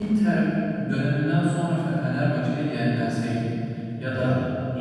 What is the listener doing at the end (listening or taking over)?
listening